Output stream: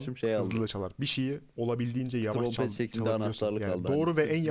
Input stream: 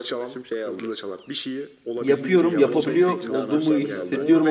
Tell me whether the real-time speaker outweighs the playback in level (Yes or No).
Yes